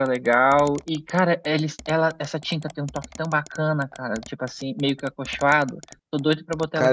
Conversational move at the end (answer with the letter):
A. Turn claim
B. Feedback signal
A